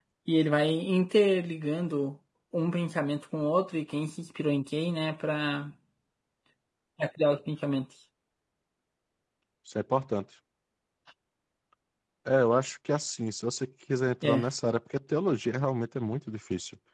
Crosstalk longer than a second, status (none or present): none